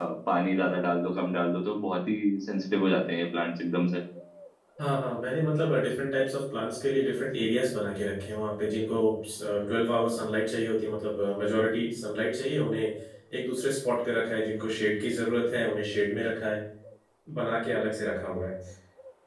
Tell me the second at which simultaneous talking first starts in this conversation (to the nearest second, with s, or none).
none